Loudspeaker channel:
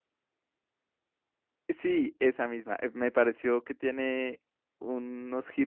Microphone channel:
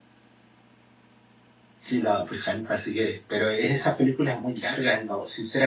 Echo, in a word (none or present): none